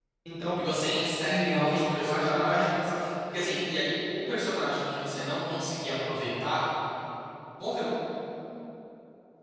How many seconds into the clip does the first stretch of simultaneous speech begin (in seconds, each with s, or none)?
1.3 s